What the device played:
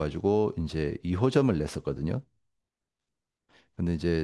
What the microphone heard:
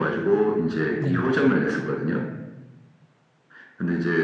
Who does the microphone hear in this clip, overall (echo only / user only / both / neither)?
both